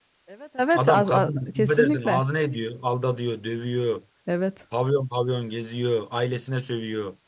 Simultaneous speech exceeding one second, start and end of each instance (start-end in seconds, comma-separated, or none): 0.7-2.2